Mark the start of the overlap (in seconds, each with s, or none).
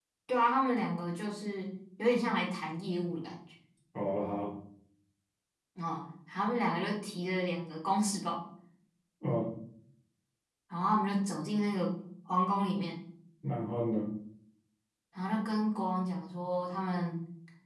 none